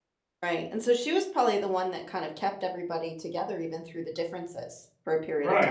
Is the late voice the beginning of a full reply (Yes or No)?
Yes